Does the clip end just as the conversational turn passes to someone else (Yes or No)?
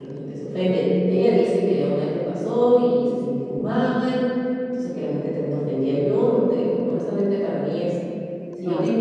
No